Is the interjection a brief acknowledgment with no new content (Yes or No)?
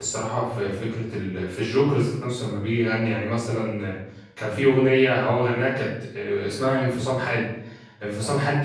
Yes